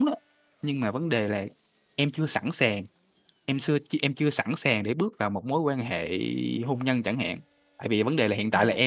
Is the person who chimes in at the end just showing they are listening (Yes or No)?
Yes